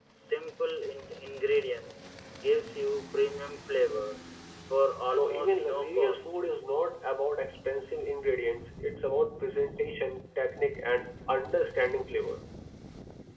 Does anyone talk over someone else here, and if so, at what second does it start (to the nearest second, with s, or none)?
5 s